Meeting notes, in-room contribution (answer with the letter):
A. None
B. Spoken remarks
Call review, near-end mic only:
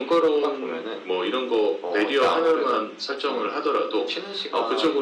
A